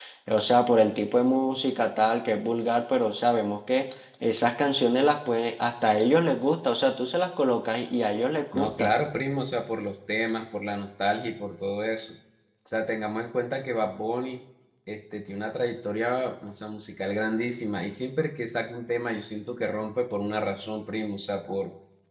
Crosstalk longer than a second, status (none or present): none